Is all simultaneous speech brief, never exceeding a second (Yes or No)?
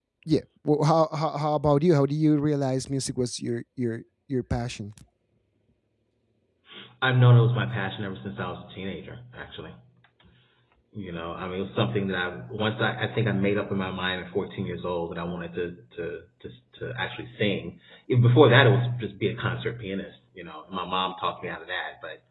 Yes